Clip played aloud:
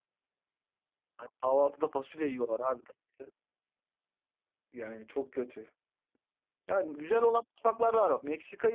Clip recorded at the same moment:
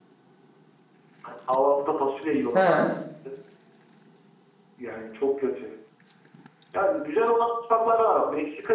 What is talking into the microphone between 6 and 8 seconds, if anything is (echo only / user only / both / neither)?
echo only